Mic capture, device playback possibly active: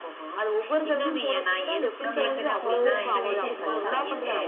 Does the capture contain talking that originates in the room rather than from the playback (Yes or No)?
Yes